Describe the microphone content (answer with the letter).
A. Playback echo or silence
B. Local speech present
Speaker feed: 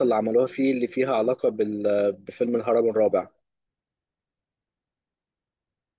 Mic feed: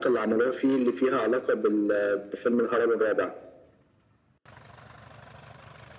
A